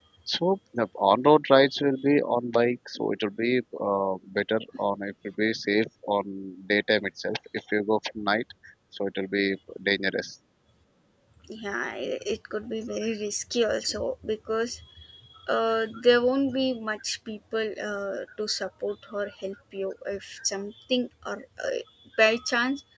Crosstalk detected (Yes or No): No